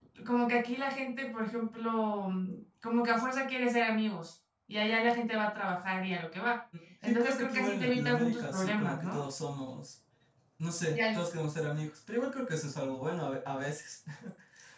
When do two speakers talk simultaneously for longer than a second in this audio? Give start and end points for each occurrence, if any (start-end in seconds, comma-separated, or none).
7.0-9.2